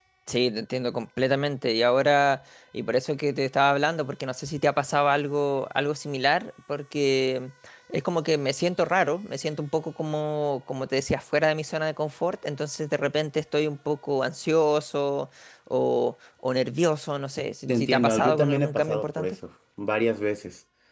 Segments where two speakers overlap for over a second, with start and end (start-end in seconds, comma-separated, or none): 17.7-19.4